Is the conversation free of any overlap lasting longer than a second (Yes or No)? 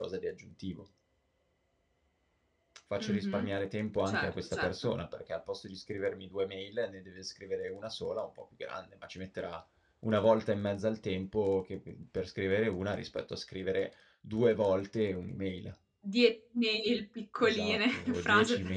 No